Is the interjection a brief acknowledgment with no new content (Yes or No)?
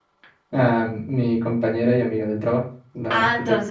No